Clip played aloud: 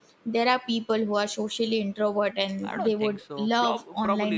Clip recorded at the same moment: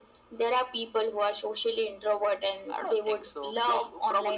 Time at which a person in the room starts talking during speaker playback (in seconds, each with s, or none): none